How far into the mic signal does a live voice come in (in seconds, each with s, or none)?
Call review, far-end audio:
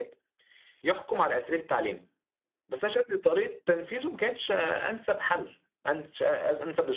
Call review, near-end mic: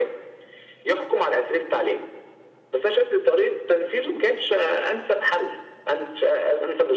none